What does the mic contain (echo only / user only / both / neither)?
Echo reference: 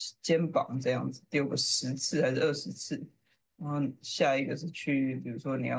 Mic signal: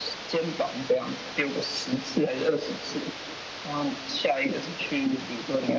echo only